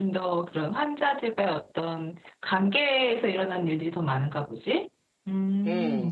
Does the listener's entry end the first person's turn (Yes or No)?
Yes